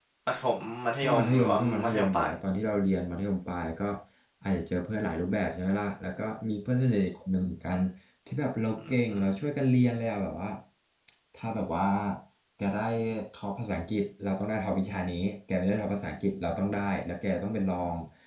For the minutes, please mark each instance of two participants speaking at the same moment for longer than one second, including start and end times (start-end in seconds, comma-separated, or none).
1.0-2.3